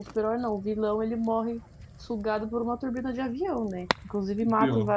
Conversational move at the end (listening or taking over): listening